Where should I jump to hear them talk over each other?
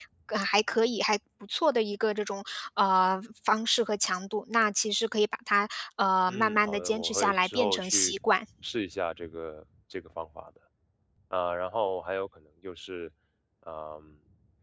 6.3 s

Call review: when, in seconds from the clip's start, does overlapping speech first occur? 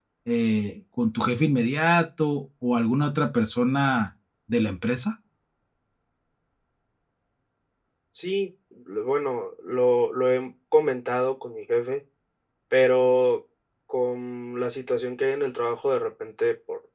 none

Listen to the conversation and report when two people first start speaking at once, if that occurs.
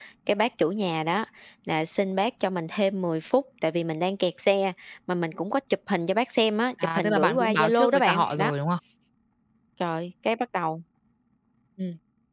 6.8 s

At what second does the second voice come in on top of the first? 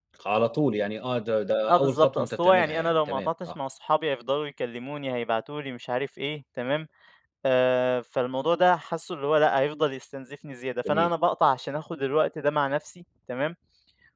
1.6 s

